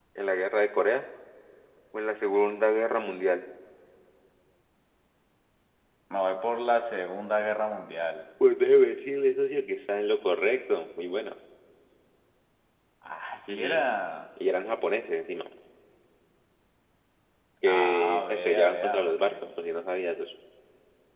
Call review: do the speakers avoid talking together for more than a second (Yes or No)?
No